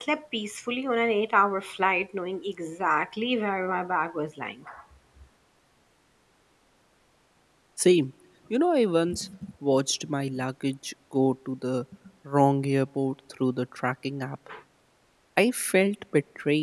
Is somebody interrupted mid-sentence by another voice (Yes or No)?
No